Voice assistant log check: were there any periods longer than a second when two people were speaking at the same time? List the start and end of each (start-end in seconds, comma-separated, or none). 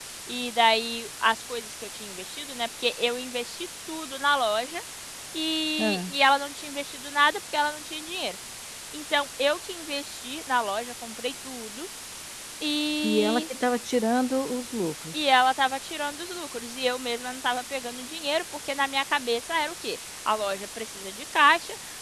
none